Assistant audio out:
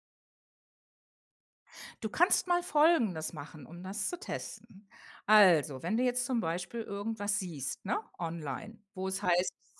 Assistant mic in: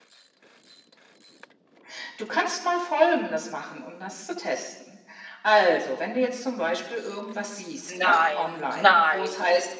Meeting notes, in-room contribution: present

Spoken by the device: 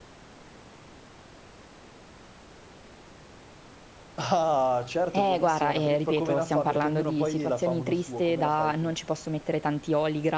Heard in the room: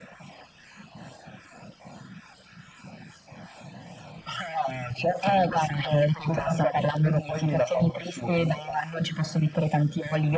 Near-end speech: none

